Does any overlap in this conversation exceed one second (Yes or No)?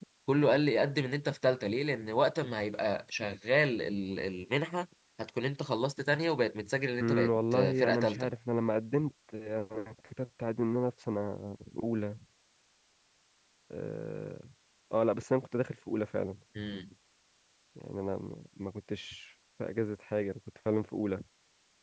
Yes